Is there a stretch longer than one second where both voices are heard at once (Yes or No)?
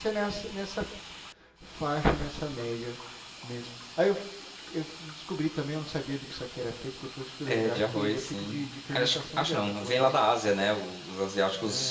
Yes